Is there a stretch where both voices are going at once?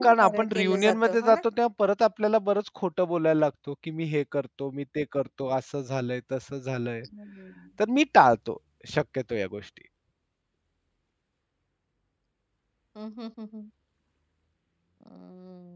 Yes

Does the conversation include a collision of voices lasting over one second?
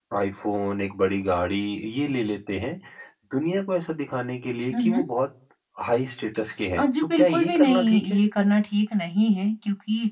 Yes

